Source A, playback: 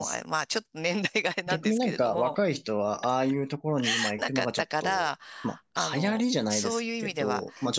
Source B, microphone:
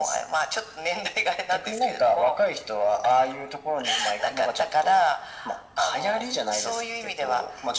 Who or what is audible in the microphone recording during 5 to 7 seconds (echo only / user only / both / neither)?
echo only